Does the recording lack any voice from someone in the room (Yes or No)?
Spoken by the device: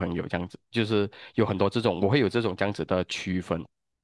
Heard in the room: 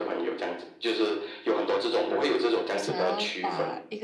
No